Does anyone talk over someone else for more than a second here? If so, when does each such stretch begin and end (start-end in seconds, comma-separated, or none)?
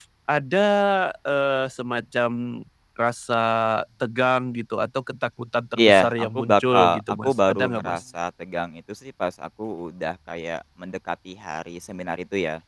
5.8-8.0